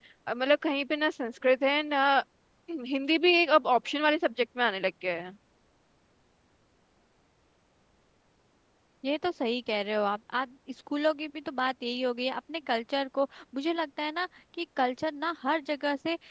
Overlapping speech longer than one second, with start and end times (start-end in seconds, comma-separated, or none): none